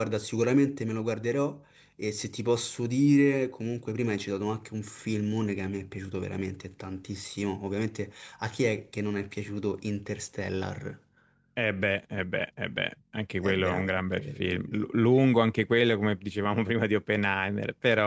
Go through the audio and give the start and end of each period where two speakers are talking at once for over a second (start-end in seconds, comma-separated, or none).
13.4-14.8